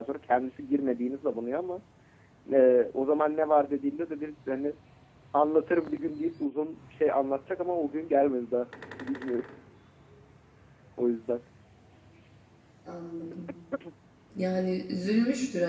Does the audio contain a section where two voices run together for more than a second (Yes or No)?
No